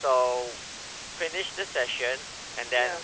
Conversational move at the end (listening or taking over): listening